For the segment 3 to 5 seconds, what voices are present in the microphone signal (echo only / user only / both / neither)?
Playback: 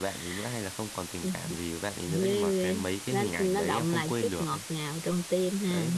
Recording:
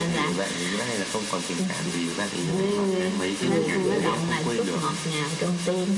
both